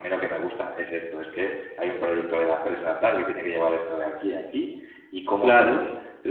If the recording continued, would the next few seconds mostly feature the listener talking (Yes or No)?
No